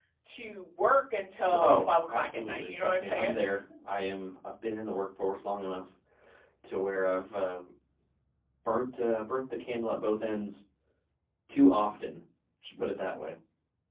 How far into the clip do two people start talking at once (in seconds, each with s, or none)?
1.5 s